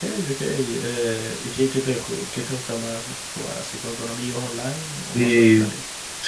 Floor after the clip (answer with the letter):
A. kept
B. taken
B